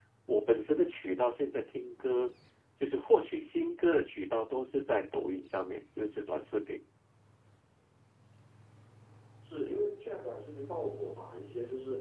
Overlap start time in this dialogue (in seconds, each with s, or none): none